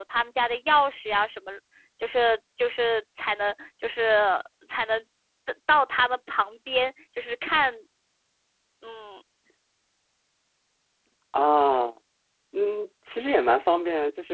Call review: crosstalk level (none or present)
none